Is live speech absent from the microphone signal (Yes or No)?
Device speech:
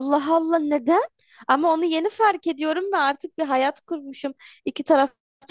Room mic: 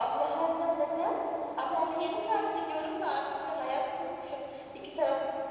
Yes